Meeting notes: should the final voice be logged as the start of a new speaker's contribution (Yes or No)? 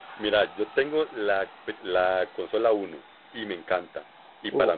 No